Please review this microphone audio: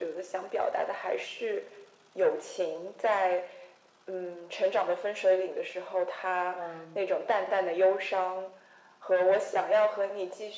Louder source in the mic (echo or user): echo